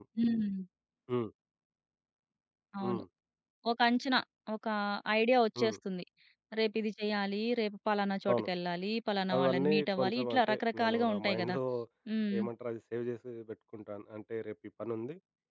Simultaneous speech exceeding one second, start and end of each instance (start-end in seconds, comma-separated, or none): 9.3-11.6